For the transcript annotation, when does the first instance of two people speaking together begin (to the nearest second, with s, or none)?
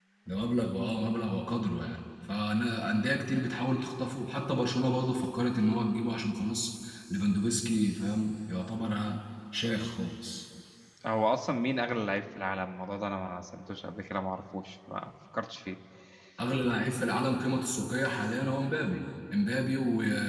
none